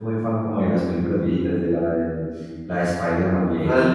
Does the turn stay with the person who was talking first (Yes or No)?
Yes